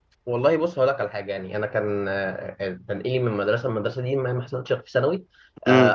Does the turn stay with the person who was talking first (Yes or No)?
Yes